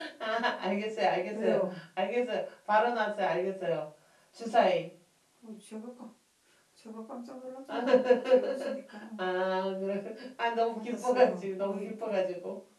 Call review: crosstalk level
present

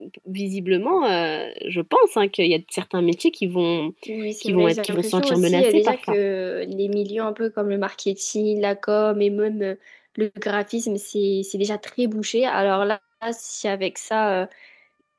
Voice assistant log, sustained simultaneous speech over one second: present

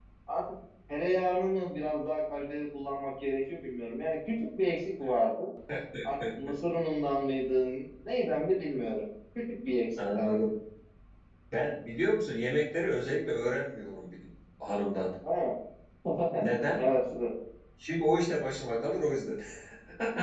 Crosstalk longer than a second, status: none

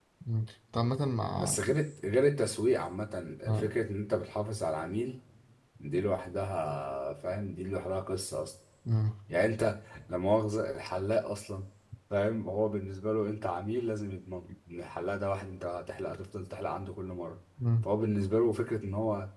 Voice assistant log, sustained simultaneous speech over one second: none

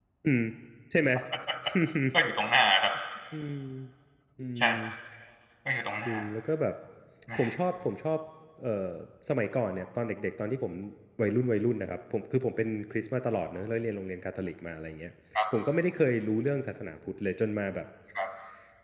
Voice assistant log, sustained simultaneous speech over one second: none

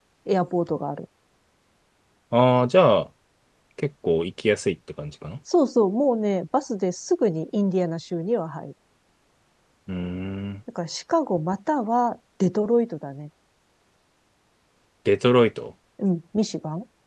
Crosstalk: none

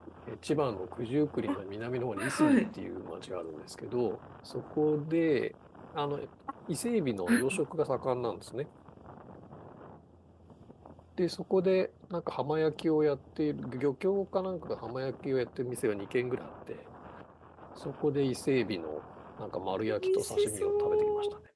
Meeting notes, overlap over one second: present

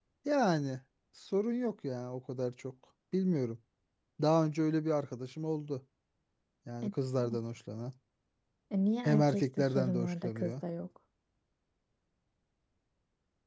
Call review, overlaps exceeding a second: present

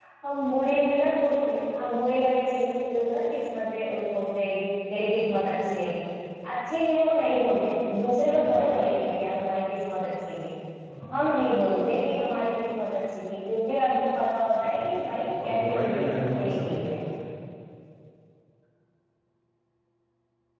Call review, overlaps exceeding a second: present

